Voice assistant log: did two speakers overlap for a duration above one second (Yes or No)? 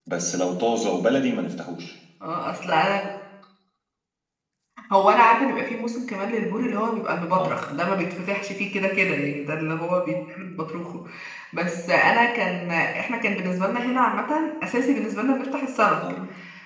No